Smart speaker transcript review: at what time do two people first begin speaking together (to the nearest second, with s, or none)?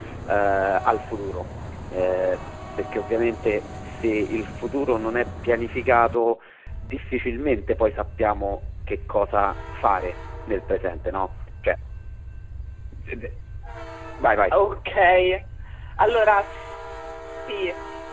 none